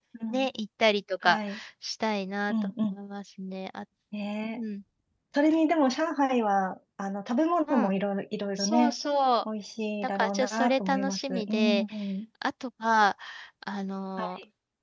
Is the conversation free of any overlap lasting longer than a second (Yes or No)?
No